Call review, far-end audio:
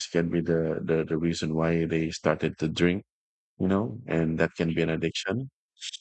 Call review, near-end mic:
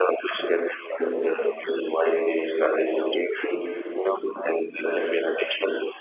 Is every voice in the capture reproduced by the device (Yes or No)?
No